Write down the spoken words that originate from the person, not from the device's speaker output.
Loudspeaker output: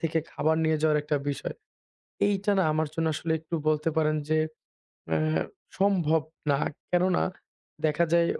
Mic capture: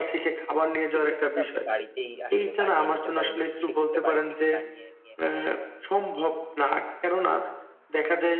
এগুলো কিন্তু আপনি বাড়িতেই আসলে বানিয়ে নিতে পারেন এবং সেক্ষেত্রে বাড়ি থেকে বানিয়ে নিয়ে

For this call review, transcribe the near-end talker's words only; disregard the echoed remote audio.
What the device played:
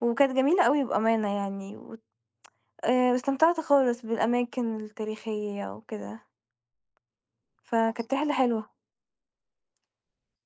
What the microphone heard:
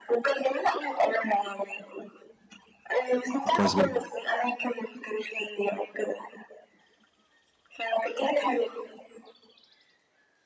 كويس جدًا.

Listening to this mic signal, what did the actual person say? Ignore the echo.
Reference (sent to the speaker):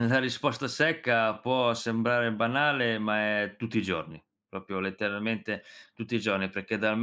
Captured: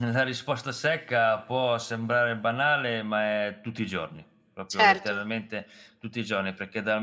certo.

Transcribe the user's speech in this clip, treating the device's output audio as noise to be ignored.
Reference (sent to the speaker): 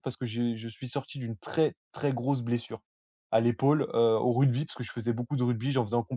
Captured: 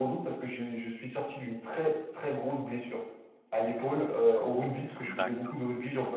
D'accord.

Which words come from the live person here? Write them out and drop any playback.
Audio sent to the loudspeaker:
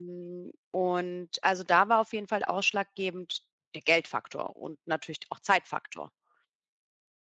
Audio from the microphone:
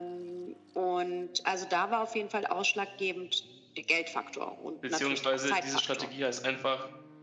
beziehungsweise diese Strategie heißt einfach

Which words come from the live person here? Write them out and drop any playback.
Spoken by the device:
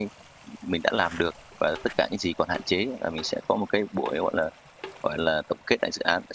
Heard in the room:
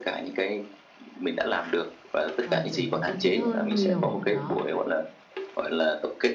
ờ, trở nên thân thiết hơn nhiều, đó.

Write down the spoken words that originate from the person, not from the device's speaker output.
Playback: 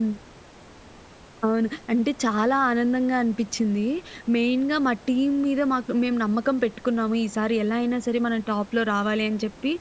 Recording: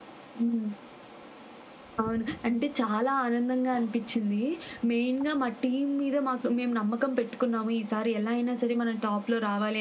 none

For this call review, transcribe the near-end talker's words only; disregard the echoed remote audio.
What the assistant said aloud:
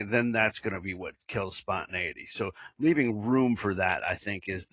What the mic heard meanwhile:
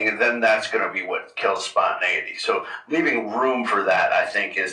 none

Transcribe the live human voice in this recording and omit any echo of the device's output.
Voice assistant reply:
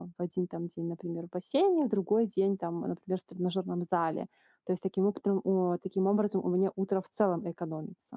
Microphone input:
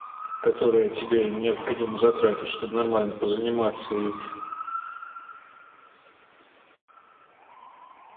которое тебе необходимо затратить, чтобы нормально позаниматься и

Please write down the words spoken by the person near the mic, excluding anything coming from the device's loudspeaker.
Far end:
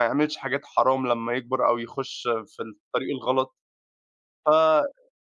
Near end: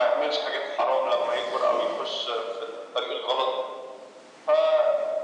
none

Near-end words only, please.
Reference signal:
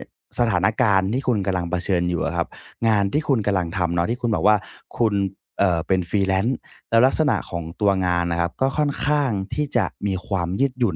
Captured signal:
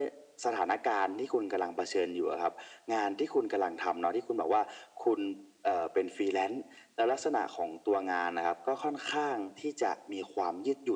none

